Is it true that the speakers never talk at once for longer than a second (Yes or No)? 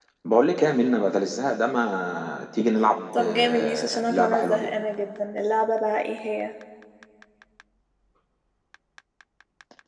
No